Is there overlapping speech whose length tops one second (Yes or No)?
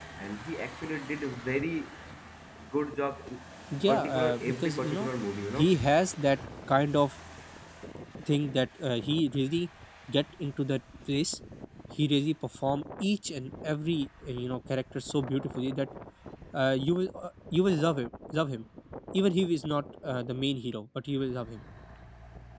Yes